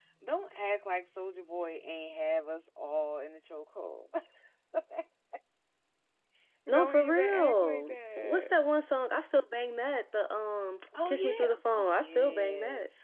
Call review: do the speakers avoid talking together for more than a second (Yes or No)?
No